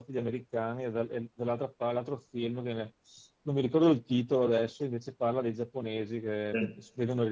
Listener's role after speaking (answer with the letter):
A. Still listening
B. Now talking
A